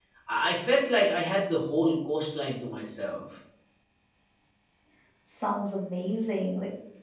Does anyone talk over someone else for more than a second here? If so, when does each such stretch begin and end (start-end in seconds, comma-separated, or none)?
none